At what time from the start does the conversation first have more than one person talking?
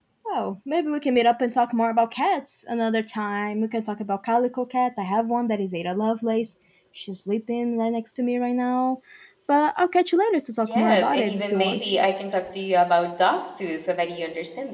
10.7 s

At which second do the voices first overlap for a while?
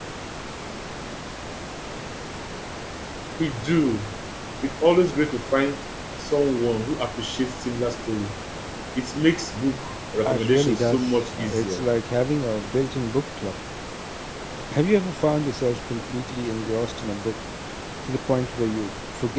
10.2 s

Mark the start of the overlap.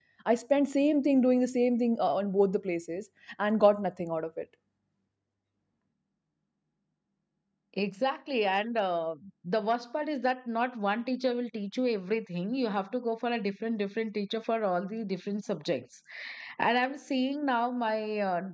none

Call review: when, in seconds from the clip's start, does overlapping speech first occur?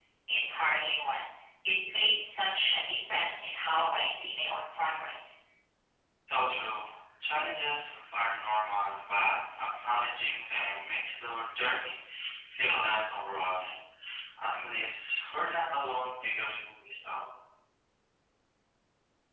none

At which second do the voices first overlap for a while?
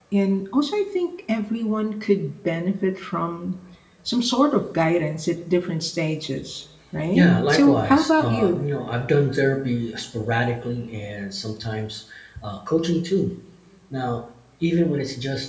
7.1 s

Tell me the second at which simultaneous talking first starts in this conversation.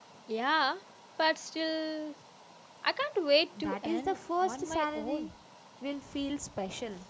3.6 s

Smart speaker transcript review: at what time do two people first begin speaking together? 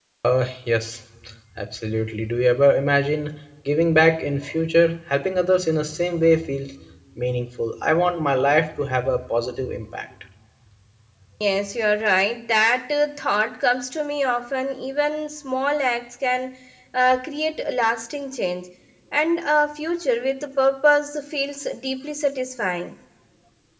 none

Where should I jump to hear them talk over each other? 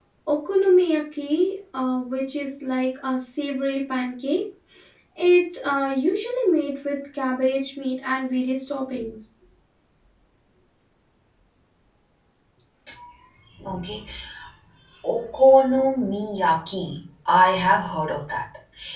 none

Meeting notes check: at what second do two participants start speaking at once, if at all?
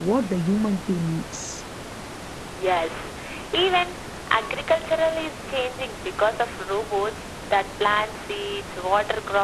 none

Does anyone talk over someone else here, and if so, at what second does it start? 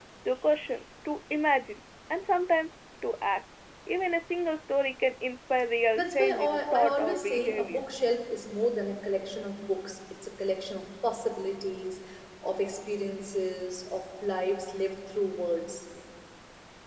5.9 s

